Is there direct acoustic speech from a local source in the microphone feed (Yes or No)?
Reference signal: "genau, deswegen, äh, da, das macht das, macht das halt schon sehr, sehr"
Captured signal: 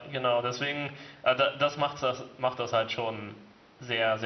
No